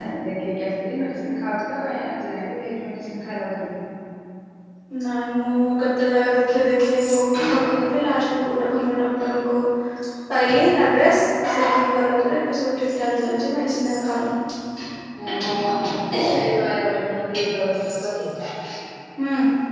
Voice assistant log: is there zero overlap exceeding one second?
Yes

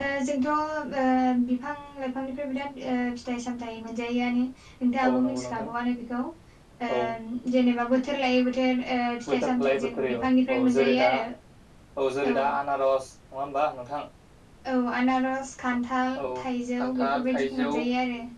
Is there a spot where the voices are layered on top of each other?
Yes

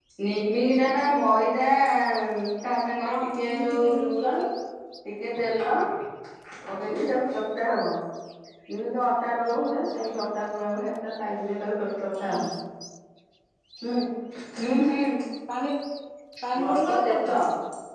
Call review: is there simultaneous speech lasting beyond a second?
Yes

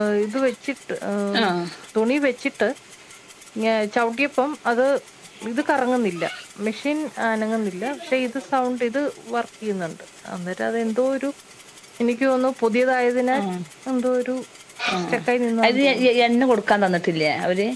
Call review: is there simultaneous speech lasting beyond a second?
No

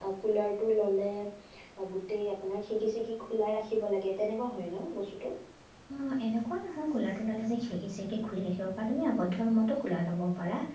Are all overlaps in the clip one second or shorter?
Yes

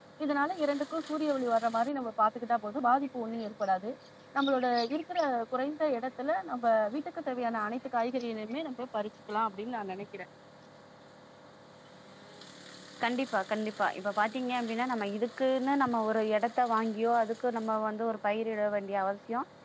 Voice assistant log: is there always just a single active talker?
Yes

